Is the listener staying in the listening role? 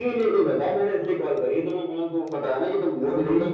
No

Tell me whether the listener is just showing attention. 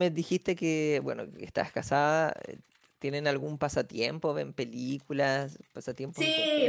No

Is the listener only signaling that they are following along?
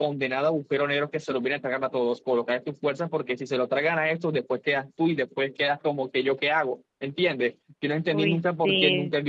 Yes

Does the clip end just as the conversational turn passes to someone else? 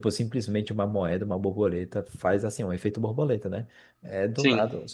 No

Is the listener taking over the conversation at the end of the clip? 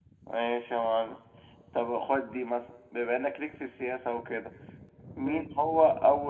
No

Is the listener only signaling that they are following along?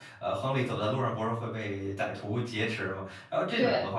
Yes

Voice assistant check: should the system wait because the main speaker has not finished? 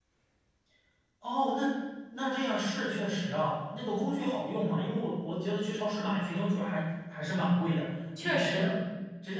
Yes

